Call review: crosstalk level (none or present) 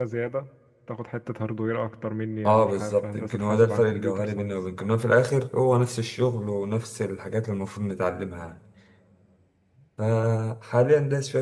present